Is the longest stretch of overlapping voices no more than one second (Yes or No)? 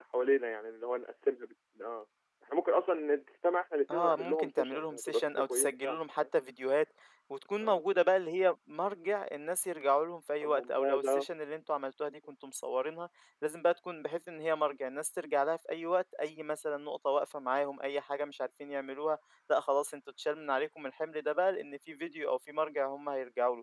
No